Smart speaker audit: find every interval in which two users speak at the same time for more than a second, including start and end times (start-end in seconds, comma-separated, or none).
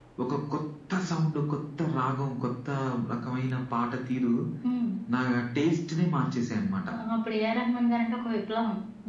none